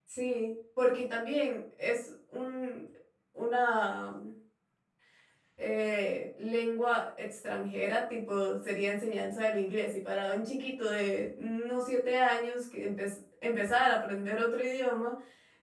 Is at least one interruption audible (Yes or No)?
No